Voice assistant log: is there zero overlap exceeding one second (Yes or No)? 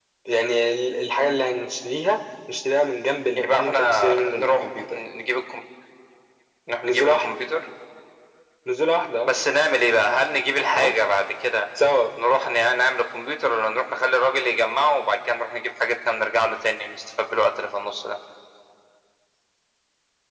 No